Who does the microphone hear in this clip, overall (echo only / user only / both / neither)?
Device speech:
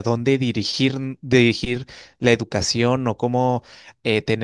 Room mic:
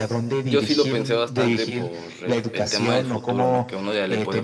both